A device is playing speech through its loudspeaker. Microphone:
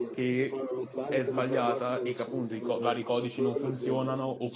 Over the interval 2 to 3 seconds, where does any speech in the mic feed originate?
both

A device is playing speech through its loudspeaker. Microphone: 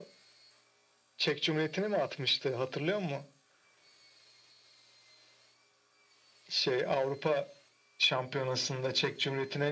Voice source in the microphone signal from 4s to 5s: neither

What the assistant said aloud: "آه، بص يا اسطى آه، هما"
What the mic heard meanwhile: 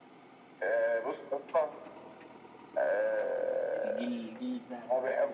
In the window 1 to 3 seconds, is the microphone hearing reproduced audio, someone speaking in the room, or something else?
echo only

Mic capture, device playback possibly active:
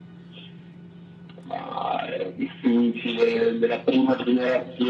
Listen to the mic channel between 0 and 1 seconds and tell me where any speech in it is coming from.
neither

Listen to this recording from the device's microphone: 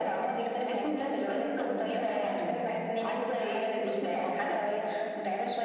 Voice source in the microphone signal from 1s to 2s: echo only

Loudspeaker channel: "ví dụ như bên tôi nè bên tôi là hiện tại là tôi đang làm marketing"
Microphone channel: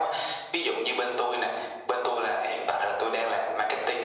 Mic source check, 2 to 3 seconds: echo only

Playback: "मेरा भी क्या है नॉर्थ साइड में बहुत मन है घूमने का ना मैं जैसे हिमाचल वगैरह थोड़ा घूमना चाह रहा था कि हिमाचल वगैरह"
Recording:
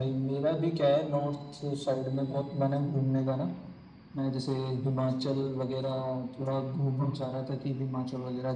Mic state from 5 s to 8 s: echo only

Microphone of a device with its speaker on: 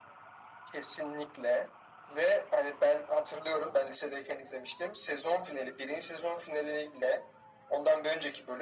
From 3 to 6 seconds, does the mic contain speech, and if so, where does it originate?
echo only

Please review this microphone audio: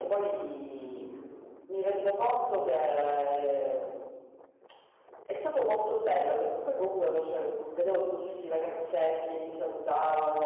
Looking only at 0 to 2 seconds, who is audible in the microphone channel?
echo only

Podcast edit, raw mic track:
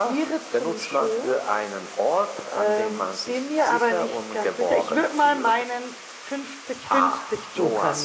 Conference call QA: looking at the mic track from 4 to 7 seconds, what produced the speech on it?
both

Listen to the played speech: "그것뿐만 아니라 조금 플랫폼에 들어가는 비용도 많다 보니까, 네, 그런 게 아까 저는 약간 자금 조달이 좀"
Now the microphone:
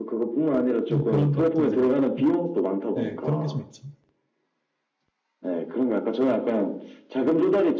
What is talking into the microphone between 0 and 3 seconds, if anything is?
both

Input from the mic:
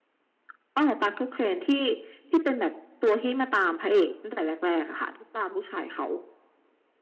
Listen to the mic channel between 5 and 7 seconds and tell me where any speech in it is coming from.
echo only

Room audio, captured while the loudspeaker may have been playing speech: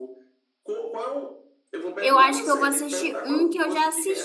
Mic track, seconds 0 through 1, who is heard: echo only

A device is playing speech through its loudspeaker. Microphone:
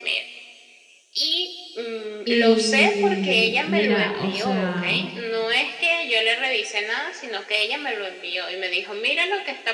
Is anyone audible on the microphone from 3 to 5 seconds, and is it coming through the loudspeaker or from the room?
both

